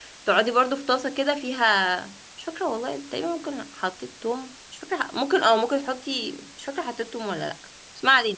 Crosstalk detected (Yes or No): No